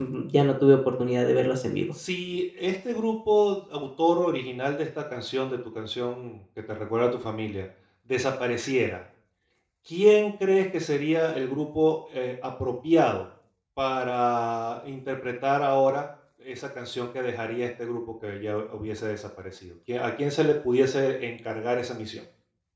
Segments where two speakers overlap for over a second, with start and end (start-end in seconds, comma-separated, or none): none